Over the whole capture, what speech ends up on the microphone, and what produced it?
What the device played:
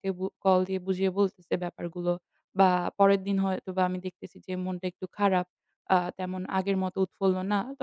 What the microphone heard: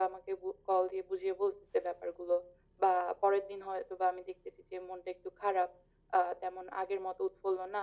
echo only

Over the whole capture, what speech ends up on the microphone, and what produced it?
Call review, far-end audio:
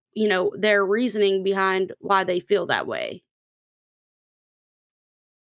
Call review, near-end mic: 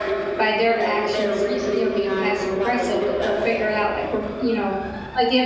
both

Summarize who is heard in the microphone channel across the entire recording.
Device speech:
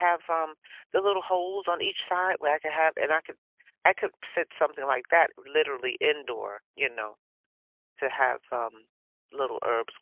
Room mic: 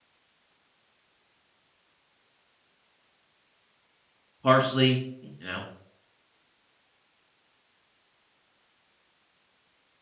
user only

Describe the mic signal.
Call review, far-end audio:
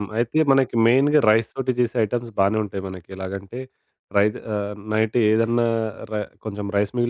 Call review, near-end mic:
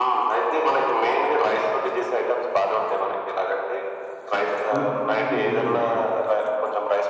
both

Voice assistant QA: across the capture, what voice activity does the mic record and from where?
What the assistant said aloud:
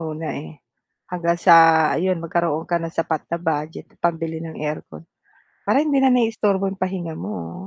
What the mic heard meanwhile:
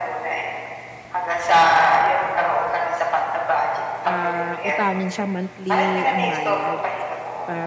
both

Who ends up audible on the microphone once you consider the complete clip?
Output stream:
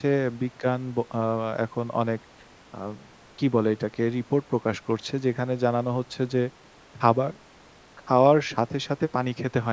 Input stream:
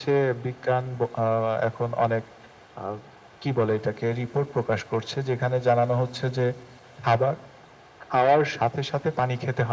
echo only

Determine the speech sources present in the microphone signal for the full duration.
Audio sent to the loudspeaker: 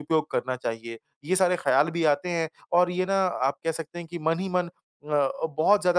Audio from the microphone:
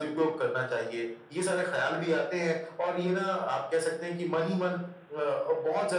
echo only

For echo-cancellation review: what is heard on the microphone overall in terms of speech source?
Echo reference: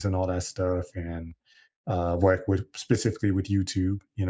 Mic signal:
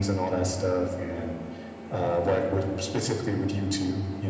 echo only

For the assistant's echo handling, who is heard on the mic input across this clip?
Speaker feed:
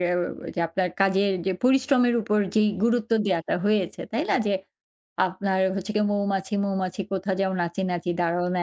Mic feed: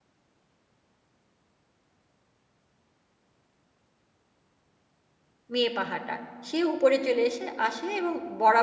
user only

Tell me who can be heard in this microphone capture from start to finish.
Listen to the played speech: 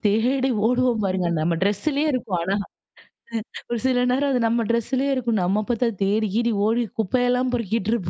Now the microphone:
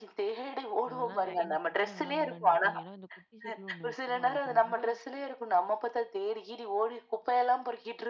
both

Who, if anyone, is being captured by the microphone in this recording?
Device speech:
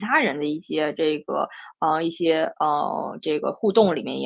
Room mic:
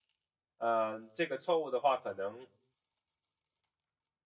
user only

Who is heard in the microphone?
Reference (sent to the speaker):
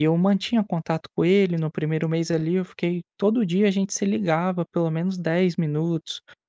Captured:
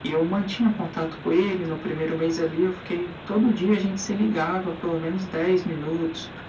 echo only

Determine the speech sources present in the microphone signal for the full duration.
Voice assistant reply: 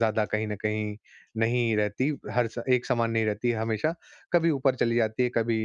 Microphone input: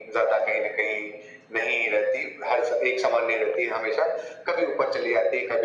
echo only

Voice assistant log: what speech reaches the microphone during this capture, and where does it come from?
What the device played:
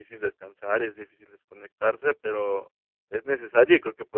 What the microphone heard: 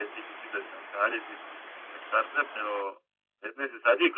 echo only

